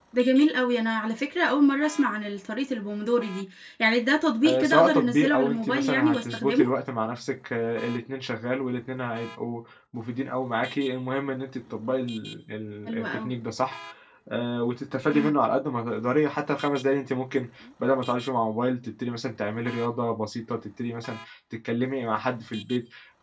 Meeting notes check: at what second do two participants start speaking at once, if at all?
4.4 s

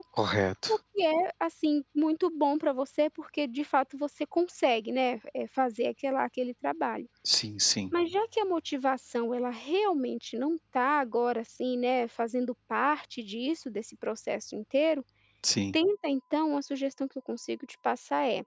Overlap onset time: none

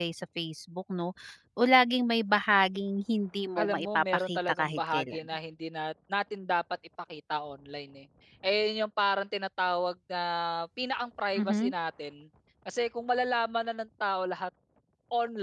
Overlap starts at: 3.6 s

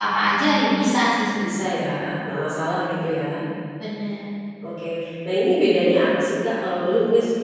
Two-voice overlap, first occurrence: none

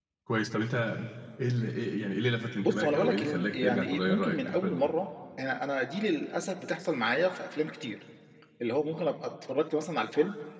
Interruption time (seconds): 2.6 s

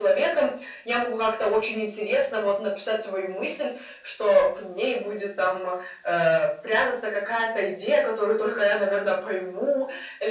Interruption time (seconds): none

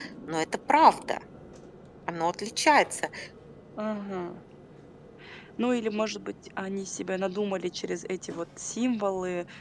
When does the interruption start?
none

